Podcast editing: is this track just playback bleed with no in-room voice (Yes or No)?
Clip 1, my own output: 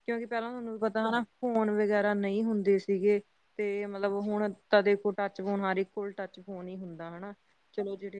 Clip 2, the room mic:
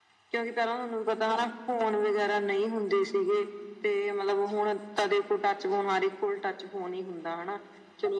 Yes